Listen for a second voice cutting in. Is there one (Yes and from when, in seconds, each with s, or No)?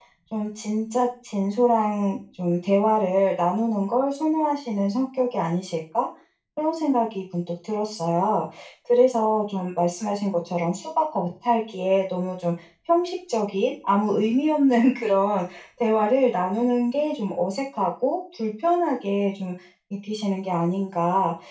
No